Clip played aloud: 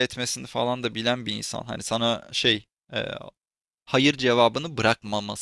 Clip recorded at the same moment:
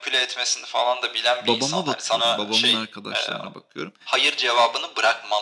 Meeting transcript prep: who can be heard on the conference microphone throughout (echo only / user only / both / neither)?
both